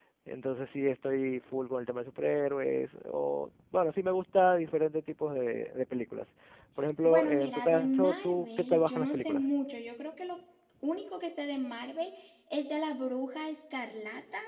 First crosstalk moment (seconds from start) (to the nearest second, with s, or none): 7 s